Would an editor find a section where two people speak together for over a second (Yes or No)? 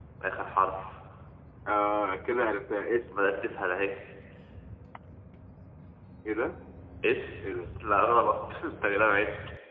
No